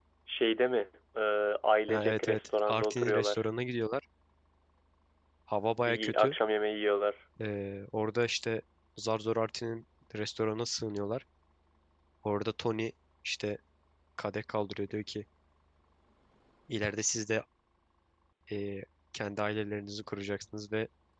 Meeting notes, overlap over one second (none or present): present